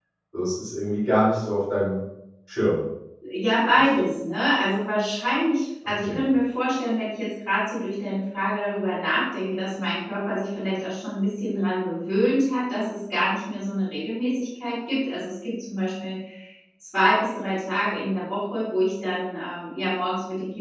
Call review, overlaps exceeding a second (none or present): none